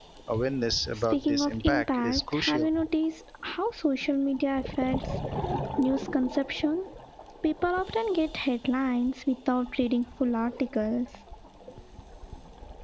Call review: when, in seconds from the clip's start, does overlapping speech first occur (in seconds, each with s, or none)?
0.9 s